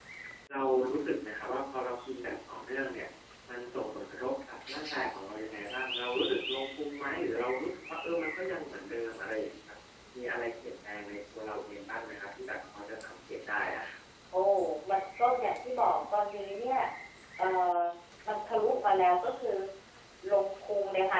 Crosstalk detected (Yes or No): No